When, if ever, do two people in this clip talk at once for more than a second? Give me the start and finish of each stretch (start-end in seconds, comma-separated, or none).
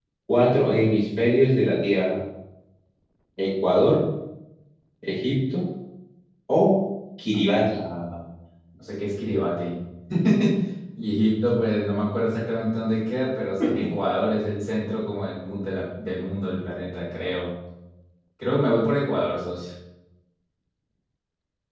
none